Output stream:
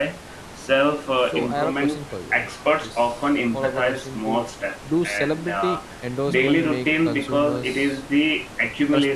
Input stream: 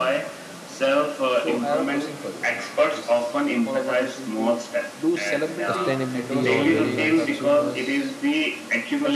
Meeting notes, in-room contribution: present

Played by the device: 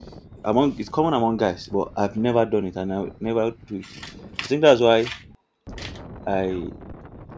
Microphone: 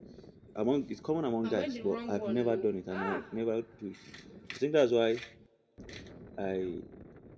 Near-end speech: present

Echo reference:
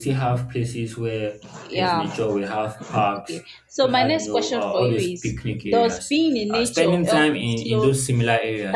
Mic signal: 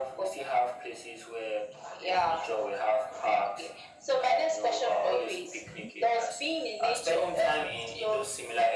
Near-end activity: none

